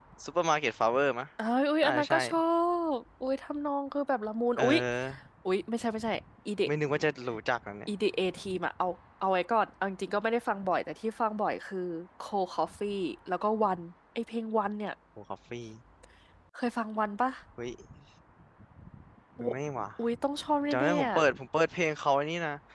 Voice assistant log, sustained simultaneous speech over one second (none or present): none